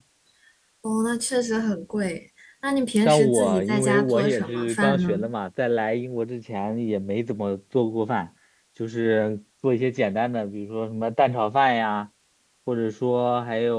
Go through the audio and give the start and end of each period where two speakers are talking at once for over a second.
3.0-5.2

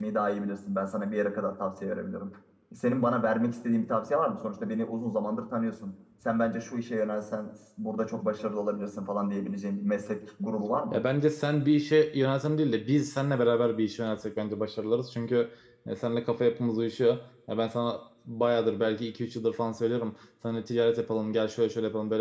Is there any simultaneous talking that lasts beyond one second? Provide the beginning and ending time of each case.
none

